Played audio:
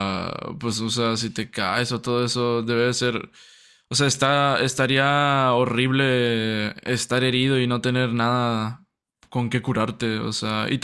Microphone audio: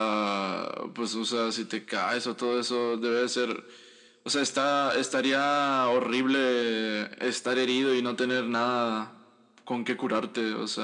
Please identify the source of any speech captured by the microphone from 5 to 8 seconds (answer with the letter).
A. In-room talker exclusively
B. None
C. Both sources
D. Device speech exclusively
D